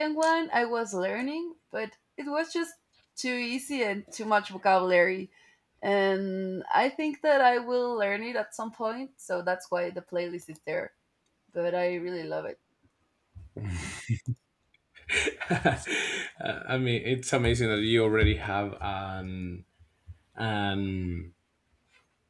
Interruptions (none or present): none